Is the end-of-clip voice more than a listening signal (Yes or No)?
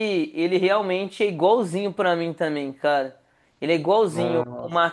No